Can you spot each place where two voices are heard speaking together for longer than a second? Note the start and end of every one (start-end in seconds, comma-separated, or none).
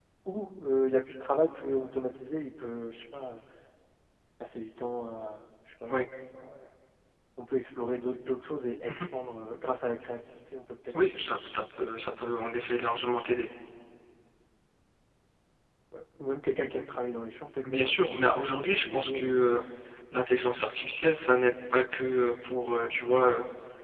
17.6-19.4